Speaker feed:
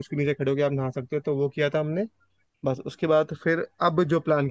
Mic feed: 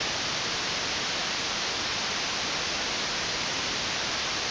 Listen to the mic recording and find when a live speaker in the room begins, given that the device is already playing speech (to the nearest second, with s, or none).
none